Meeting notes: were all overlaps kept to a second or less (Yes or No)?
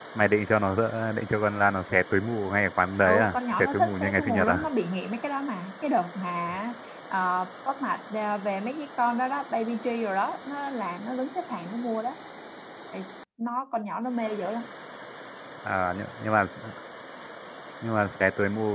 No